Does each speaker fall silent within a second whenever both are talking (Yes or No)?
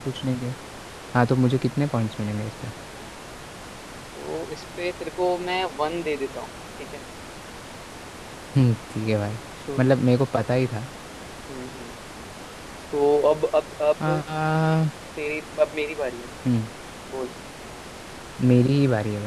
Yes